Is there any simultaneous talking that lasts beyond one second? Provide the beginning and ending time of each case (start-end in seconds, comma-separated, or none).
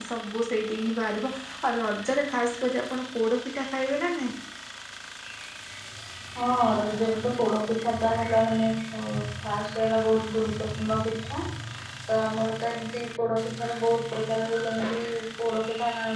none